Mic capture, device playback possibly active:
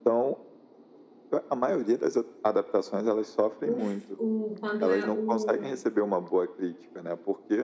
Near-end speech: present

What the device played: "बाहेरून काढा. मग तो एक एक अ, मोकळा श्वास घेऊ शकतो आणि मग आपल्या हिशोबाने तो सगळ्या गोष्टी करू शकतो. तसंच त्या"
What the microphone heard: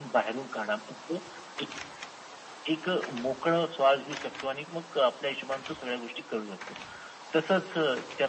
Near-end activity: none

